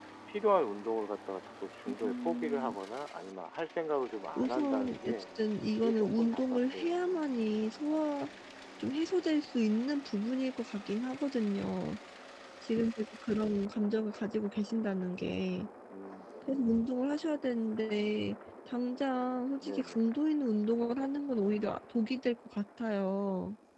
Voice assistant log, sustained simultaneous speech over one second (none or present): present